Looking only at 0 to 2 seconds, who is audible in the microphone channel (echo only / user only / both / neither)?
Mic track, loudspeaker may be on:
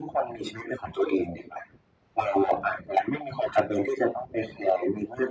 echo only